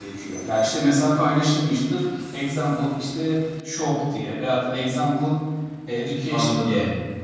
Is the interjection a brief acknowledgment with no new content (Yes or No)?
Yes